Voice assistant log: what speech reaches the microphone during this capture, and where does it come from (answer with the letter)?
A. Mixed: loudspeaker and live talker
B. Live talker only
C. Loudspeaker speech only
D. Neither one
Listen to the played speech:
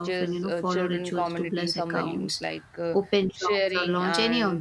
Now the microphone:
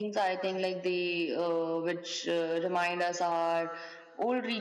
B